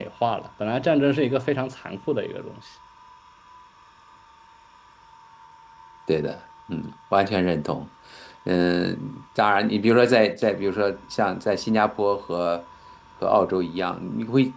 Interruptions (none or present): none